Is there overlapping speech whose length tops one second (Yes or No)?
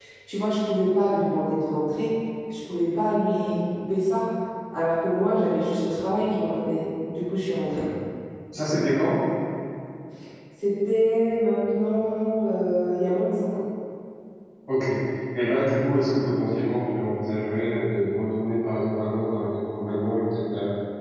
No